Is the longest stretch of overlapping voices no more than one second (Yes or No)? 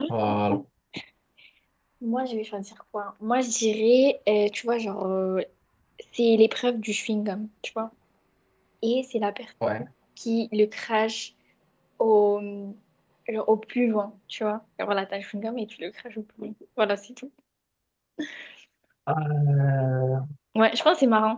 Yes